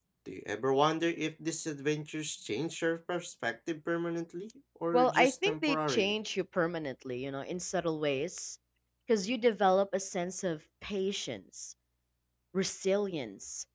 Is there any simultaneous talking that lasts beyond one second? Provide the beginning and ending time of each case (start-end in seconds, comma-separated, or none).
4.9-6.1